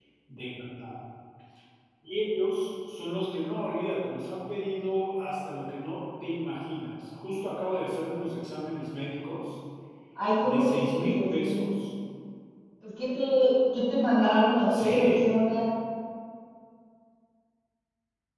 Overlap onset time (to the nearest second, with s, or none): 10 s